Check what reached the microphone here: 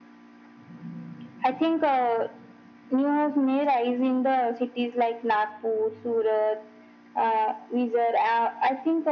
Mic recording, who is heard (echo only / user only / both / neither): echo only